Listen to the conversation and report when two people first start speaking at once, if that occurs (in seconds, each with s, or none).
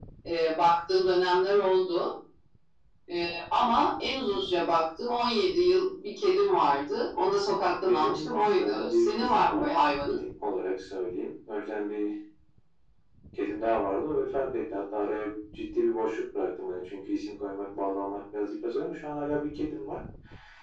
7.8 s